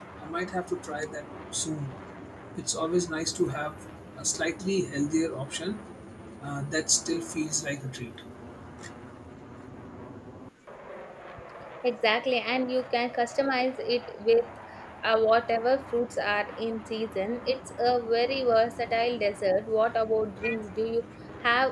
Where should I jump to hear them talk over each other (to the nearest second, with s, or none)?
none